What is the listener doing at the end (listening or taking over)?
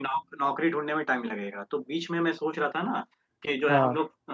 listening